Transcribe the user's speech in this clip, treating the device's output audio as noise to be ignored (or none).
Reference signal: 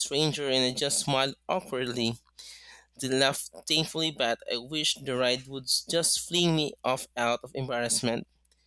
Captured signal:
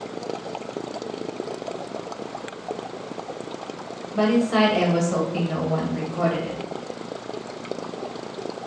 But inside, I was hoping no one recorded it.